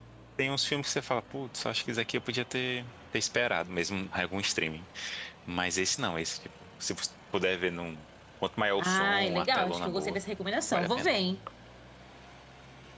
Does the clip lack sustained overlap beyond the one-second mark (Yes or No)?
No